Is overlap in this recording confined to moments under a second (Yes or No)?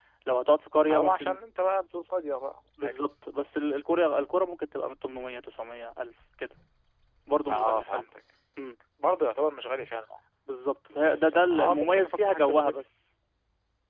No